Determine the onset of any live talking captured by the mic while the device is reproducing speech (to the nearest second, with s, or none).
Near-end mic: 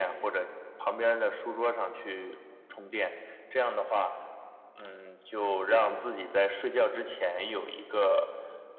none